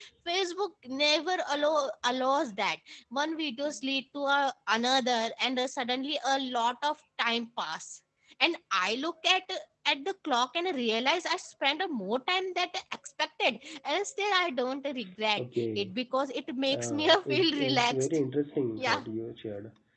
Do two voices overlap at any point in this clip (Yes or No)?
Yes